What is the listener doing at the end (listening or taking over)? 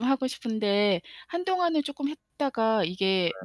listening